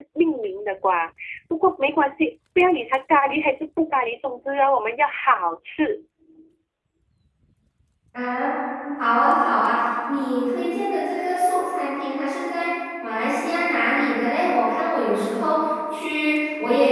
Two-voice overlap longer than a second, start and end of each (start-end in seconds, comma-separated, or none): none